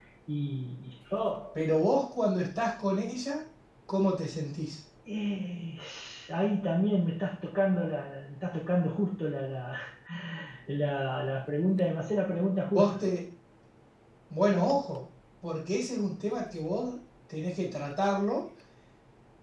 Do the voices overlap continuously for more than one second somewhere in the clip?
No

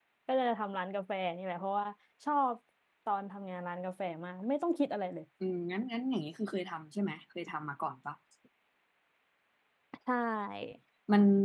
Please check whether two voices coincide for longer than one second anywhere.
No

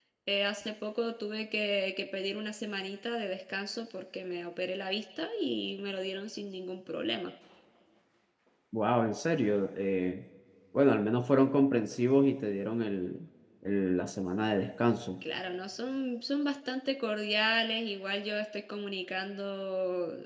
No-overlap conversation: Yes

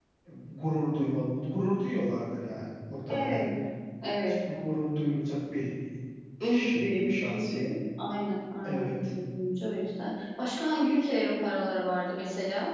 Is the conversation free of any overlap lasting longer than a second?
No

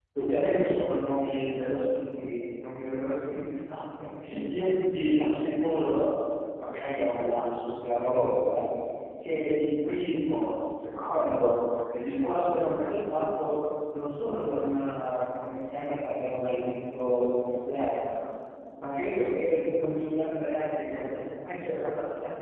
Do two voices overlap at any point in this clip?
No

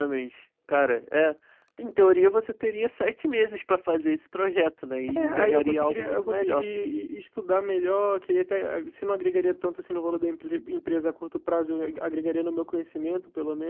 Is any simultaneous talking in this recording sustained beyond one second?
Yes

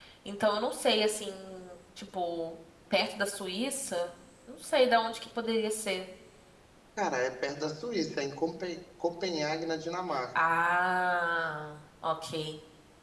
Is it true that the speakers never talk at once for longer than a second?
Yes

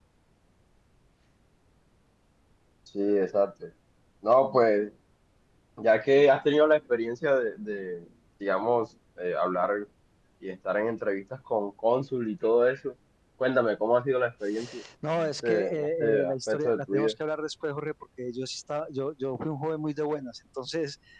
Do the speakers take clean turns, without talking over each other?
No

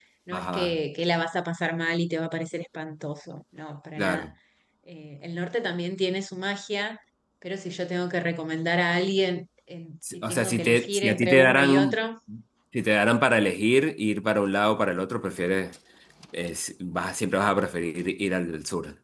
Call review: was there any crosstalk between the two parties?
Yes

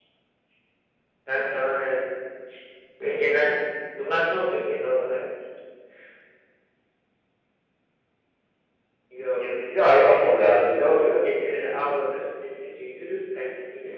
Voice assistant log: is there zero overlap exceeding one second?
No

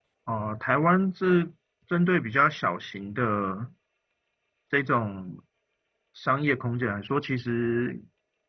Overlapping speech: No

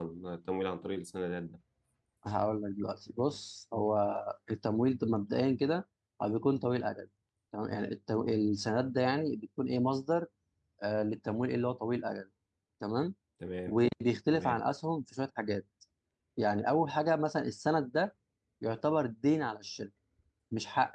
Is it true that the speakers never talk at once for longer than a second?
Yes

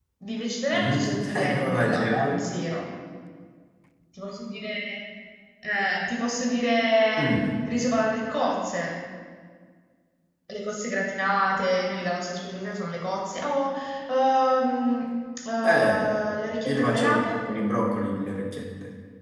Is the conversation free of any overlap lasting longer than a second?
No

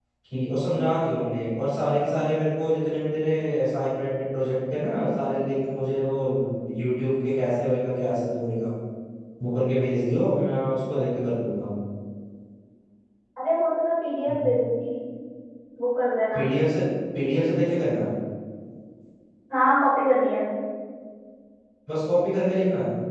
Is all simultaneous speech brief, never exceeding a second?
Yes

